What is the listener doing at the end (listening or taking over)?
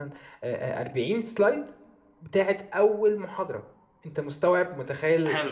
taking over